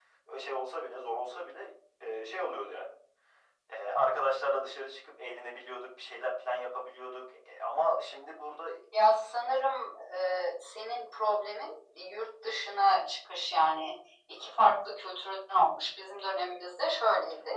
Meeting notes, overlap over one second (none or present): none